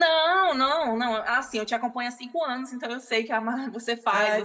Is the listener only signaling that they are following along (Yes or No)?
No